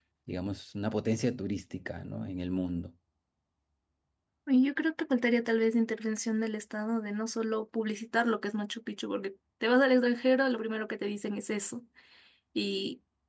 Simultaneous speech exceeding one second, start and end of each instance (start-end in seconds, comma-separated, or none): none